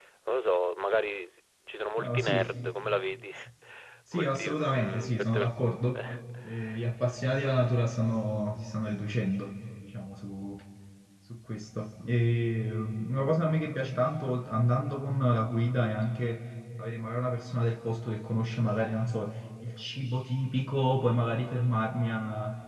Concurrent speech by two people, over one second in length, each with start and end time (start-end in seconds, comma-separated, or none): 4.1-5.5